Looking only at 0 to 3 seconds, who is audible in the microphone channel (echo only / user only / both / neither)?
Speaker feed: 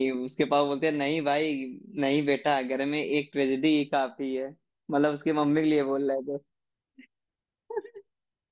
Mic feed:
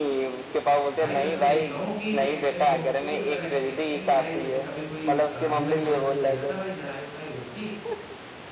both